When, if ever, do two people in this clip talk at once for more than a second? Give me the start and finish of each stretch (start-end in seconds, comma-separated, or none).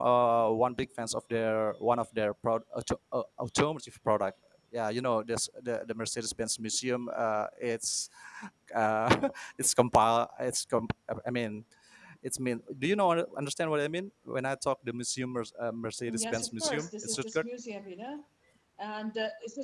16.2-17.4